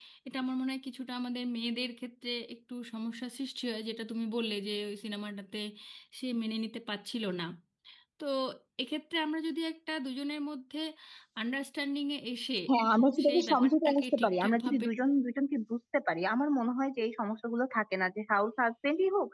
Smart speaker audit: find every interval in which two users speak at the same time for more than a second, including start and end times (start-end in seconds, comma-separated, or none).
13.2-14.9